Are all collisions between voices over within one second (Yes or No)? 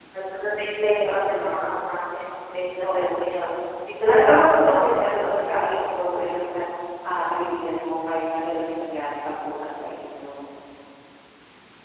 No